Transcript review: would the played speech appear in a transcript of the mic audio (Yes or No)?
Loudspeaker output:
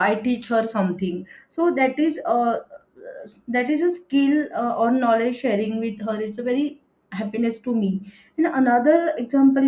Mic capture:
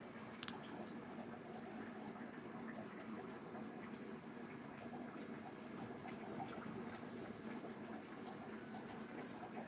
No